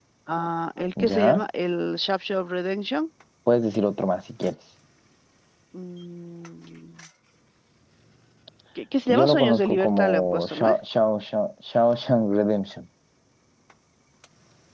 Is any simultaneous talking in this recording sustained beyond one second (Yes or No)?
Yes